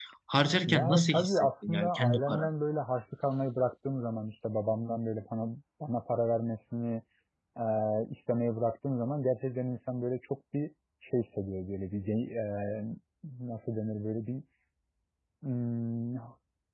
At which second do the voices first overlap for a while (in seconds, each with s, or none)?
0.7 s